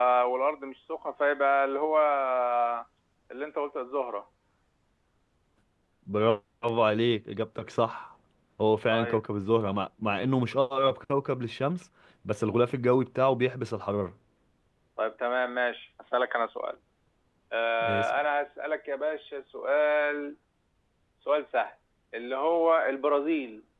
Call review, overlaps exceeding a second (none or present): none